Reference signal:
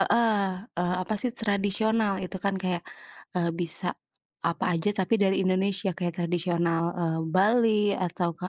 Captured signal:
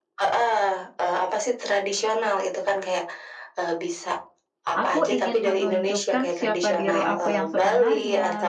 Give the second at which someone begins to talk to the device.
5 s

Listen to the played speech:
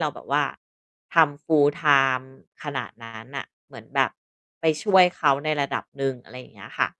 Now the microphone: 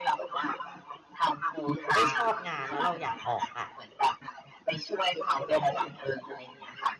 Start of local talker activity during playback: 2 s

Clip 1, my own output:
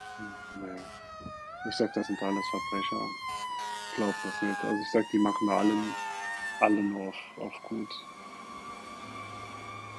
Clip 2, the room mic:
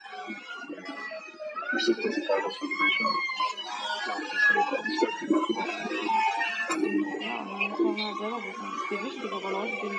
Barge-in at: 7 s

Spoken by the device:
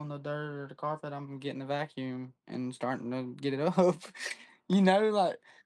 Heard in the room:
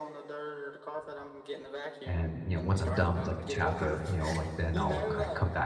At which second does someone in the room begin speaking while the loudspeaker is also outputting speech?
2 s

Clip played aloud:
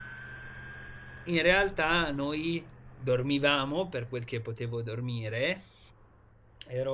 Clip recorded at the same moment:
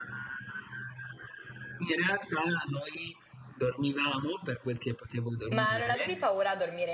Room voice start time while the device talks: 5 s

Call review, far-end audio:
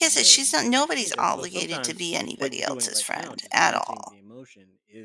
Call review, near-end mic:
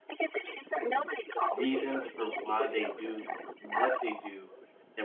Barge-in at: 2 s

